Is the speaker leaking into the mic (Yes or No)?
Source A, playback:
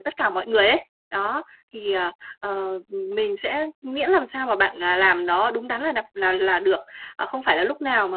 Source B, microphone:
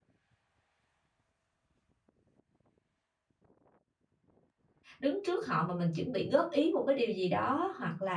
No